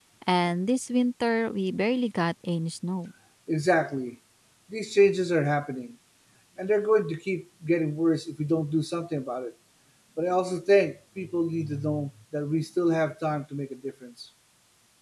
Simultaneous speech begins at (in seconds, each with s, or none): none